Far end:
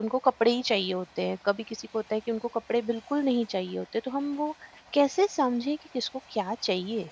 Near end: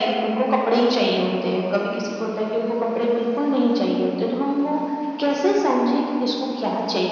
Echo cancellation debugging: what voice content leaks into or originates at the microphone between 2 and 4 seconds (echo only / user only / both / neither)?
echo only